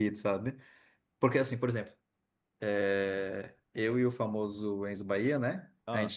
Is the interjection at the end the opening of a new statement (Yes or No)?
No